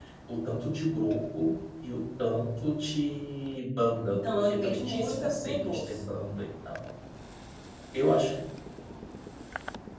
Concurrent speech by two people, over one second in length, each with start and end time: 4.1-6.0

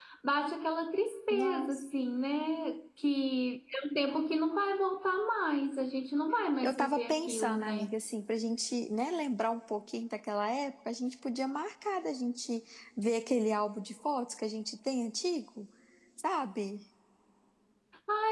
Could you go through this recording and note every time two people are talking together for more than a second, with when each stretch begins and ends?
6.6-7.9

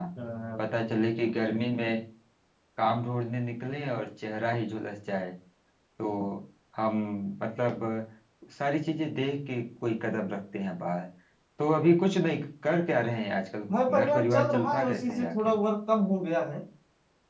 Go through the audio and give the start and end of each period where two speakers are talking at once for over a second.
13.9-15.5

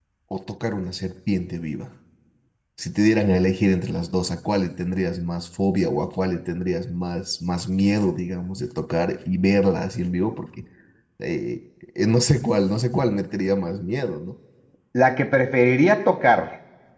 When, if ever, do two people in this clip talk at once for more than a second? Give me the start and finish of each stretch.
none

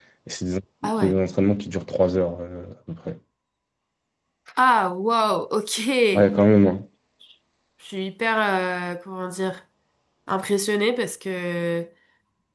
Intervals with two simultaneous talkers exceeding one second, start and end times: none

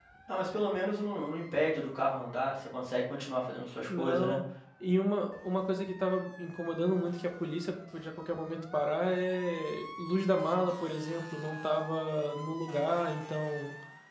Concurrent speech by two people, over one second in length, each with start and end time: none

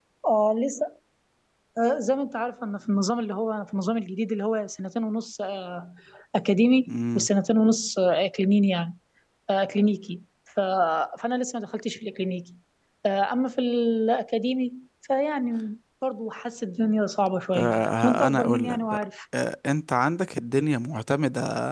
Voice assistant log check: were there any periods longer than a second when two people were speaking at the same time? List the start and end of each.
17.5-19.0

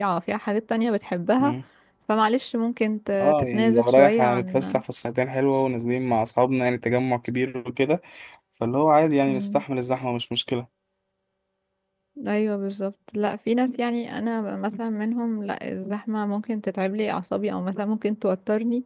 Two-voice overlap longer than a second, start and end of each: 3.2-4.8

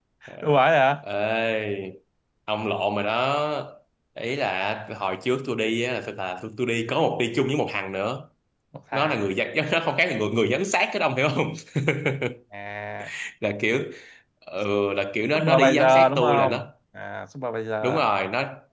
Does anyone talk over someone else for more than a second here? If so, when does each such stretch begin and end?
15.3-16.7

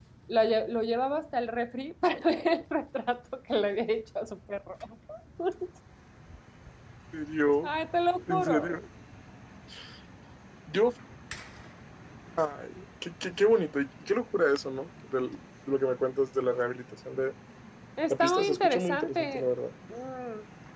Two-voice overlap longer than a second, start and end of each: 18.1-19.5

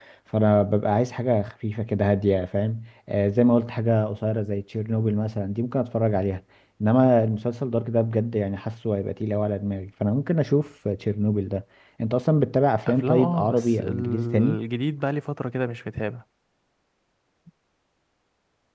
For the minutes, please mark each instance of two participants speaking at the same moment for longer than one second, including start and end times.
12.9-14.6

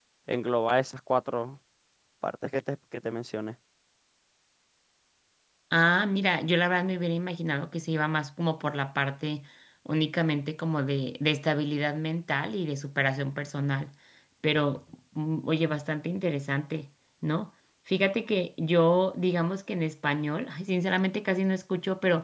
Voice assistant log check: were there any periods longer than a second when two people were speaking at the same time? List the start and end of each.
none

